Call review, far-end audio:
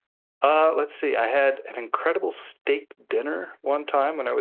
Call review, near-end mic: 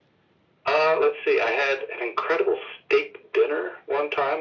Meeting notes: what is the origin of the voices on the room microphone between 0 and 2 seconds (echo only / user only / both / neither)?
echo only